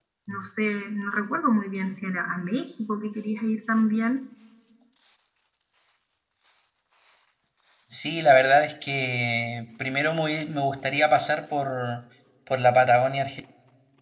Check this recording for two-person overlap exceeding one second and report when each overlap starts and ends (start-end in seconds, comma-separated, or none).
none